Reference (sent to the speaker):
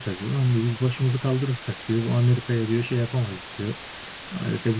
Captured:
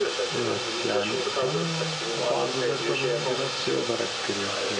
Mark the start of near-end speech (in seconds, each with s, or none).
0.3 s